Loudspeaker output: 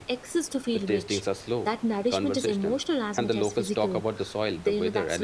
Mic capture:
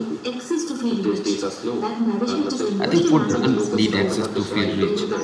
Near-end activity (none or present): present